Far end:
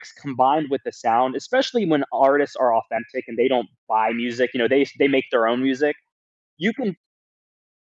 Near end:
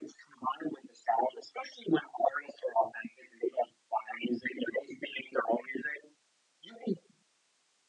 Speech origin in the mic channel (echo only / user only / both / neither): echo only